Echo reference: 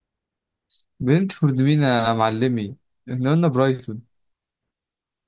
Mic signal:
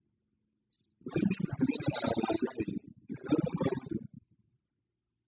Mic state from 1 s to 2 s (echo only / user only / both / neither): echo only